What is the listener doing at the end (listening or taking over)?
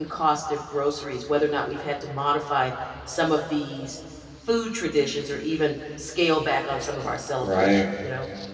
taking over